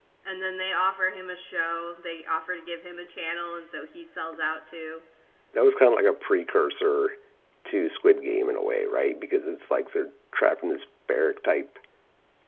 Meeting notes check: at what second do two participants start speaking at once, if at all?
none

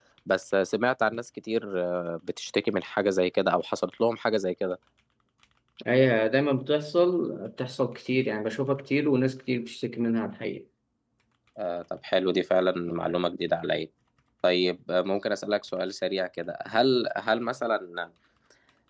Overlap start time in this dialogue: none

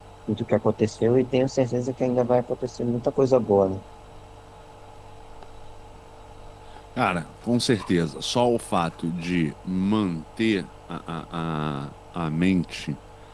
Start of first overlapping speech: none

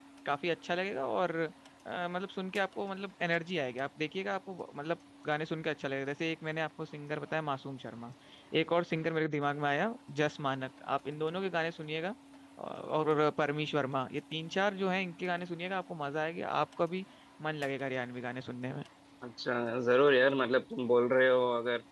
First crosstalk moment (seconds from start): none

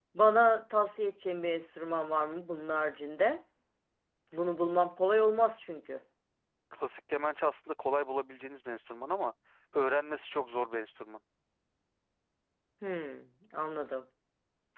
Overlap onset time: none

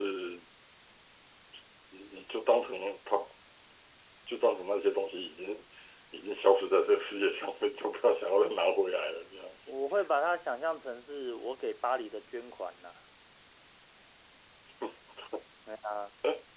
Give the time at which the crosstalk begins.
none

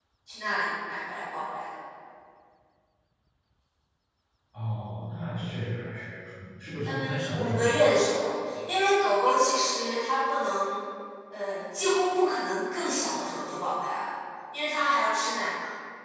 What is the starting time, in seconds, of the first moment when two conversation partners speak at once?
7 s

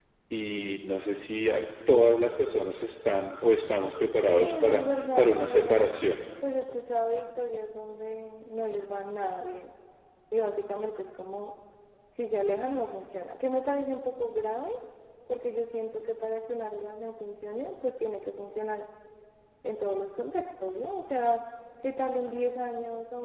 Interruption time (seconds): 4 s

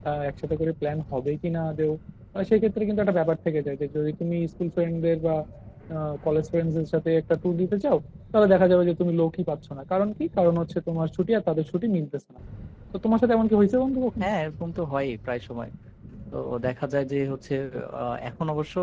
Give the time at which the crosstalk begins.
none

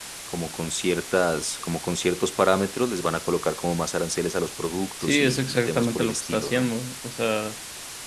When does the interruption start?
5 s

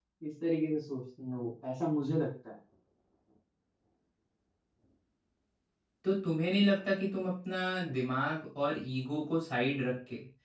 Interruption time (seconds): none

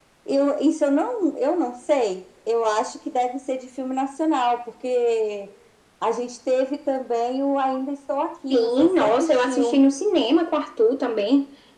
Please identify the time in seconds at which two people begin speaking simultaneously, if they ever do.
9 s

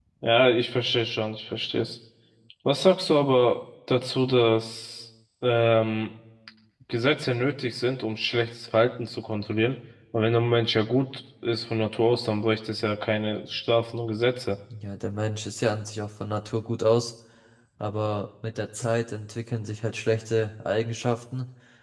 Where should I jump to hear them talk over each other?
none

